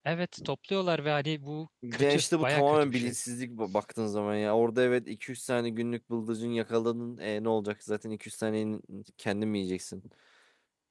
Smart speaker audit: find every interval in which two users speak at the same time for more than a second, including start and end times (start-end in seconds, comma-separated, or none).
1.9-3.1